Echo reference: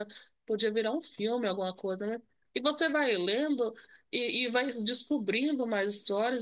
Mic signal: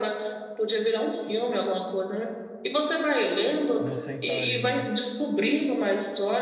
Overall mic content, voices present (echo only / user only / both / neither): both